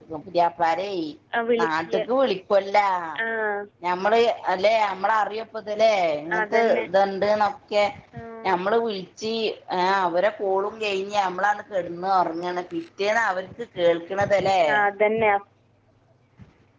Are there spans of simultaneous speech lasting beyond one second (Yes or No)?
No